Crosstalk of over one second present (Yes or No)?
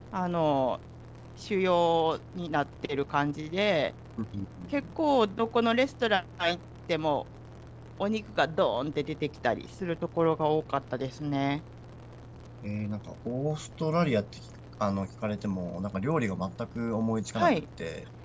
No